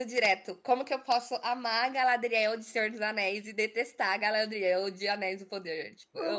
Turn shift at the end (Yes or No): Yes